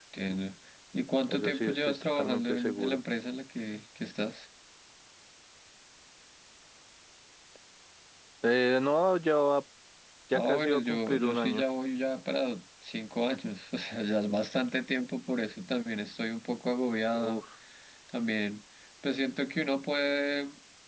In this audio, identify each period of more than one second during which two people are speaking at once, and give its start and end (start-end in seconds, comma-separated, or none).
1.3-3.0, 10.3-11.6